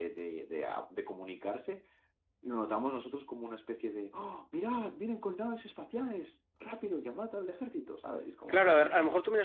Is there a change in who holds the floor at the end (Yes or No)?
Yes